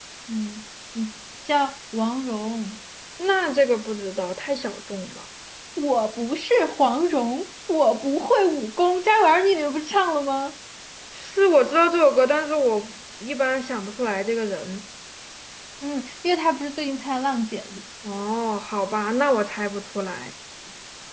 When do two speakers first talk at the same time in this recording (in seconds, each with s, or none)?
none